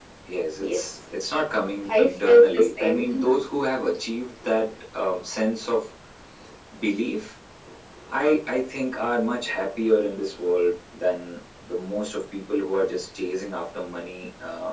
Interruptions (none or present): present